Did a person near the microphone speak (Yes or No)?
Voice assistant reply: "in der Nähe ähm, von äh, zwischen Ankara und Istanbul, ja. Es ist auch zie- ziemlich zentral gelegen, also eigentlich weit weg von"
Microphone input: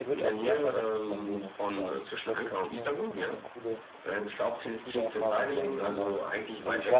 Yes